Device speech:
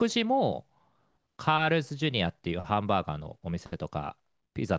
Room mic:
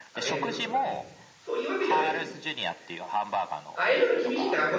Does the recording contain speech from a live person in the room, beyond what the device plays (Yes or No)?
Yes